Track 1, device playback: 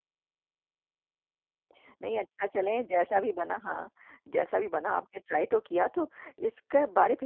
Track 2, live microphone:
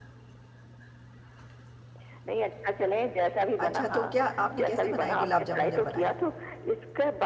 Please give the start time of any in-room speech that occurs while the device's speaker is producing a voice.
3.6 s

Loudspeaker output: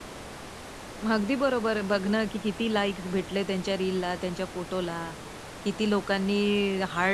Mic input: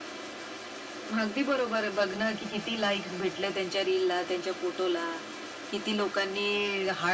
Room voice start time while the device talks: none

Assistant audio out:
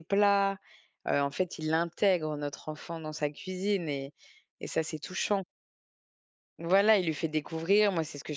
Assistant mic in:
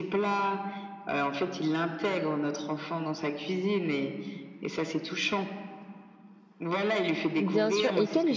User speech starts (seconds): 7.4 s

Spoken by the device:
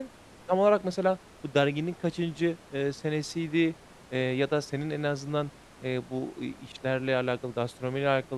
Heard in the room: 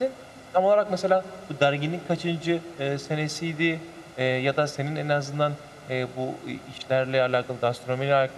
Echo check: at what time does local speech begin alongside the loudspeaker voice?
none

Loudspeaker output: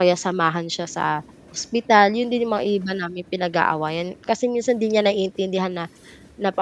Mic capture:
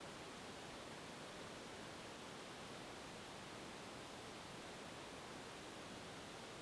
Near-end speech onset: none

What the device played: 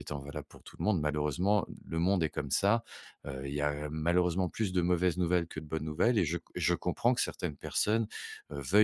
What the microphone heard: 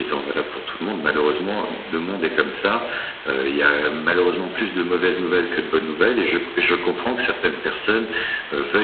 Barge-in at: none

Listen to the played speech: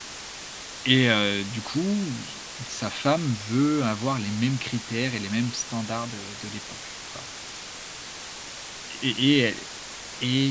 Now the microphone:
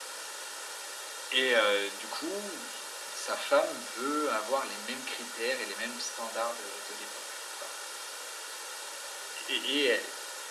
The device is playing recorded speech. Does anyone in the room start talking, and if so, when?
none

